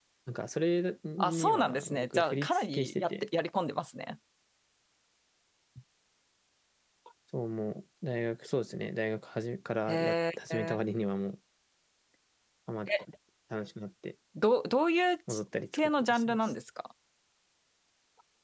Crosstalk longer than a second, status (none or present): present